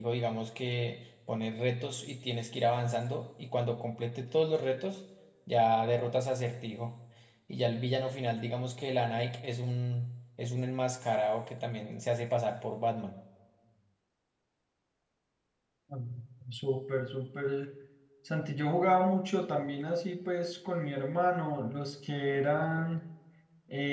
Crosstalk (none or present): none